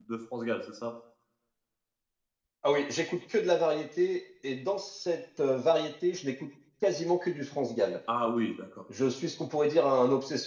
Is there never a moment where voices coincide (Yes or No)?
Yes